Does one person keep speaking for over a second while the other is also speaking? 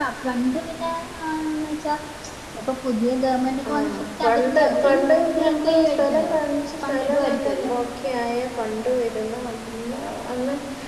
Yes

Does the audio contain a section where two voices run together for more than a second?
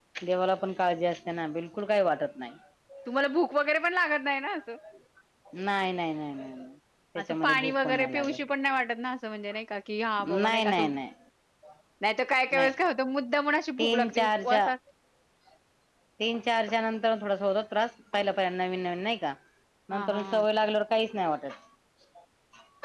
Yes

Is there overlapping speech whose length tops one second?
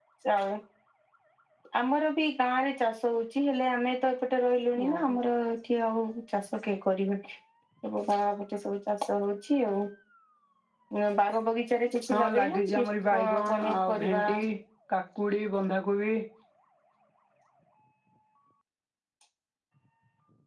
Yes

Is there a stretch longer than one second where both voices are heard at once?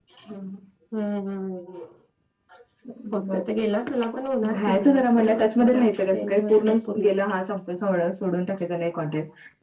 Yes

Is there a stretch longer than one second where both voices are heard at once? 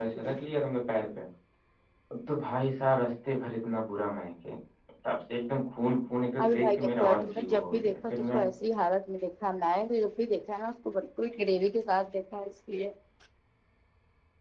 Yes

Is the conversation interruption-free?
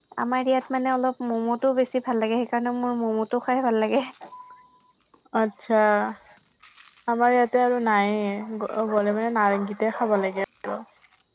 Yes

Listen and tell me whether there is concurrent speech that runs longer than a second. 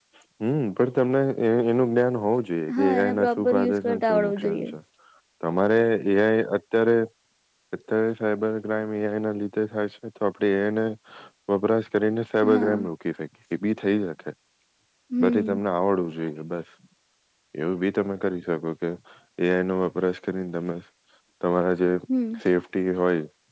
Yes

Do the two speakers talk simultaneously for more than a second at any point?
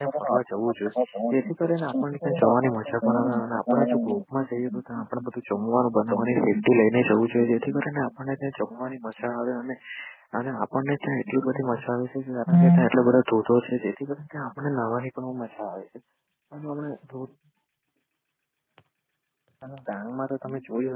Yes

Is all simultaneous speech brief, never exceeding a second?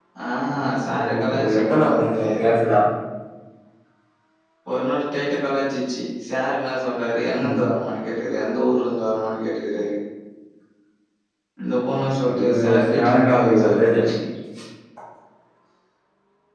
No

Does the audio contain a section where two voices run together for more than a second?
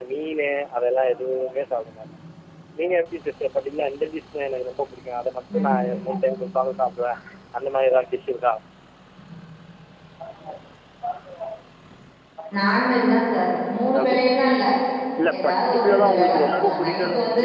Yes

